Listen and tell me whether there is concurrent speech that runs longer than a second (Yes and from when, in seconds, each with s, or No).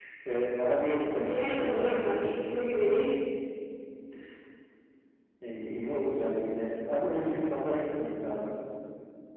Yes, from 1.3 s